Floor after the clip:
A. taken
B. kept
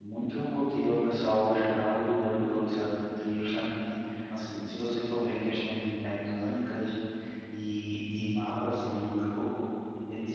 B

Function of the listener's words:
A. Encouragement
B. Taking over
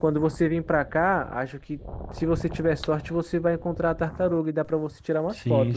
B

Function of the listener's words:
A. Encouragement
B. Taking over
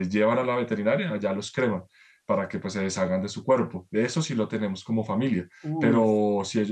A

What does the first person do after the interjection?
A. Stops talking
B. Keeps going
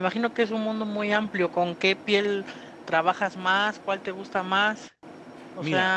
A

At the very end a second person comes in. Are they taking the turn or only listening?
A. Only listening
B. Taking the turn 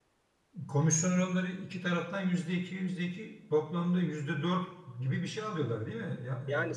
B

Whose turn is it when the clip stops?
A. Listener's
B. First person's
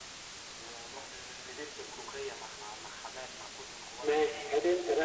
A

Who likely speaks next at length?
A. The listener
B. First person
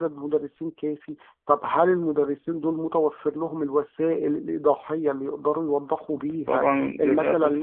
A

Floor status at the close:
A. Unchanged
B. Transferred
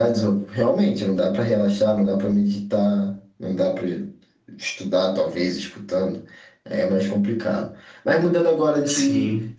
A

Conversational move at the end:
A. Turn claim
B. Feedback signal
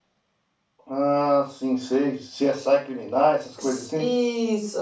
A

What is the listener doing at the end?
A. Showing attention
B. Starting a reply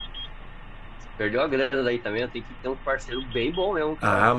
B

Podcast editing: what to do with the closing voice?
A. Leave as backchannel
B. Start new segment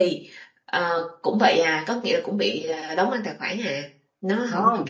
B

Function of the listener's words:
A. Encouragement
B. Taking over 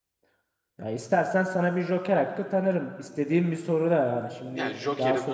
B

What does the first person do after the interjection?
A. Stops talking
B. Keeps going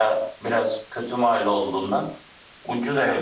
A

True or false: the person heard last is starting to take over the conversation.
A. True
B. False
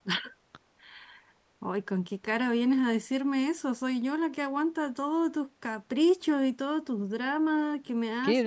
A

